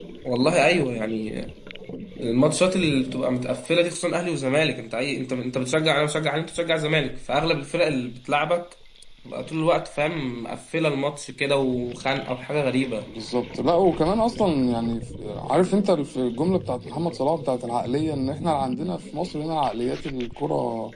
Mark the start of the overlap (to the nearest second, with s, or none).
none